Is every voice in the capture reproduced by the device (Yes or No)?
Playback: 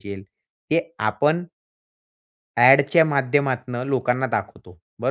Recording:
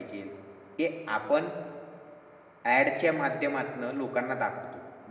Yes